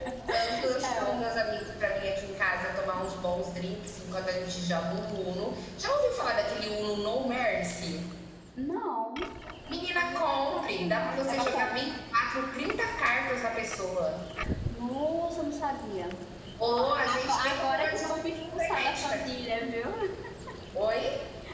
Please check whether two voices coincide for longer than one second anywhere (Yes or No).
Yes